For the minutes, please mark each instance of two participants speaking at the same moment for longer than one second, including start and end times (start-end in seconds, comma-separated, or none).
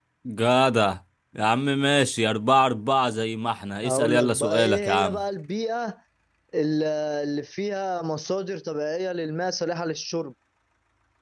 3.8-5.2